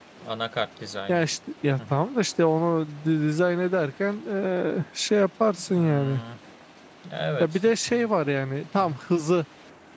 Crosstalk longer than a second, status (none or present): none